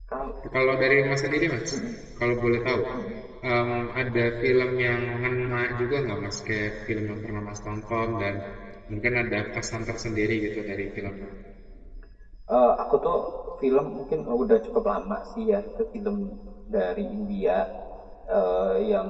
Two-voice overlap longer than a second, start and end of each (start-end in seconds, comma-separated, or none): none